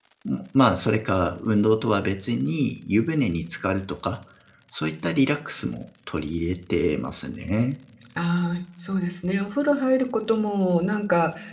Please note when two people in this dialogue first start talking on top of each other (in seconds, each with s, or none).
none